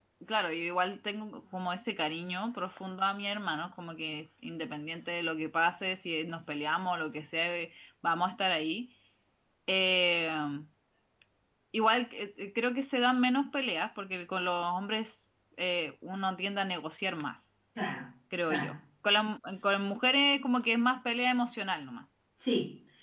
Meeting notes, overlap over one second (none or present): none